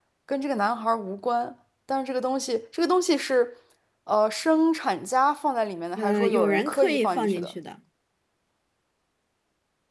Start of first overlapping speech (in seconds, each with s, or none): 6.0 s